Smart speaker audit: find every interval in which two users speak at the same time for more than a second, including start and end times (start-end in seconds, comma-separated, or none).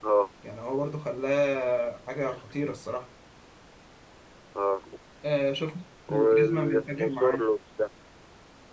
6.1-7.4